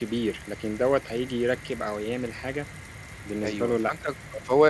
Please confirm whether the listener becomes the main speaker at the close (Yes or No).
Yes